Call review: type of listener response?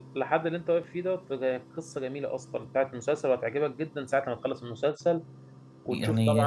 taking over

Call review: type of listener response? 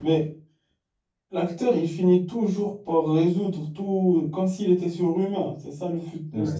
taking over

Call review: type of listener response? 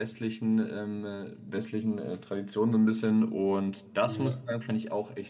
listening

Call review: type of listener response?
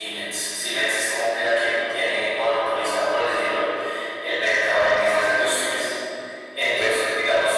listening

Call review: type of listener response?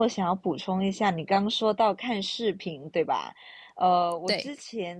listening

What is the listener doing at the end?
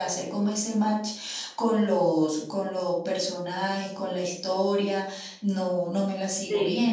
taking over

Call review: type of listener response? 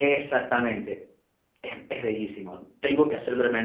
listening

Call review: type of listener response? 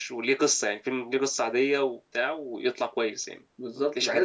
taking over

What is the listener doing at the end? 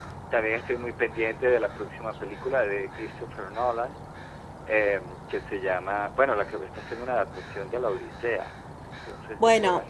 taking over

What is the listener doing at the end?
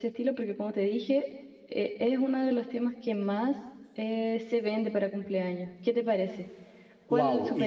taking over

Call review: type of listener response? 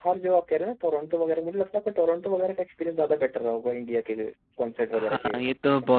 taking over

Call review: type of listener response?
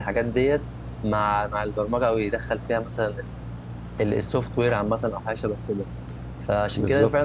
listening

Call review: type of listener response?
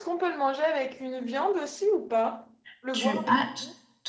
taking over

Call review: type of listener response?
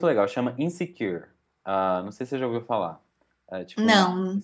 listening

